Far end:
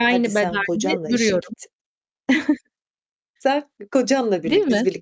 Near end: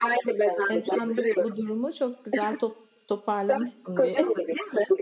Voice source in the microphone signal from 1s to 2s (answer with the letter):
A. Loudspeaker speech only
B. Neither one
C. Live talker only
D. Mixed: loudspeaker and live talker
D